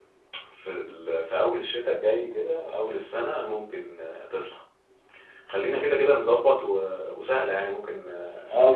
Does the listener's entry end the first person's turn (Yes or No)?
Yes